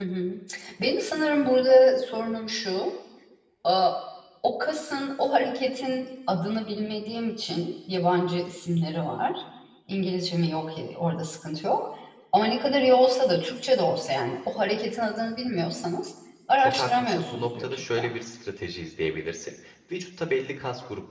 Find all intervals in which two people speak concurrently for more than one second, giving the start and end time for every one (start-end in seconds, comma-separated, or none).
16.6-18.1